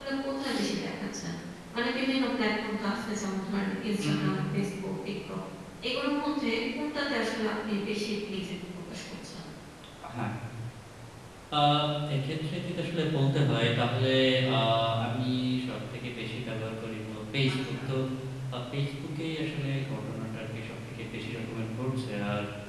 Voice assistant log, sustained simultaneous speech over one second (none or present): none